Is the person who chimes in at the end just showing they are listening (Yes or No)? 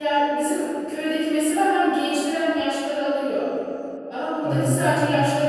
Yes